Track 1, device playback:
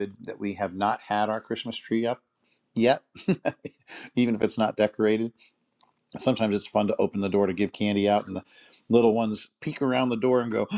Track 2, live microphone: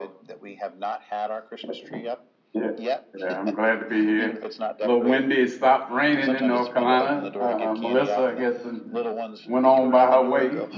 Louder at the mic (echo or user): user